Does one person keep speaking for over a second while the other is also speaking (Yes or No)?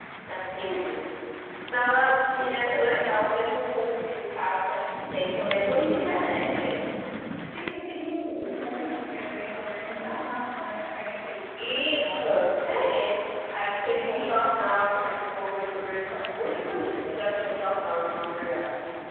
Yes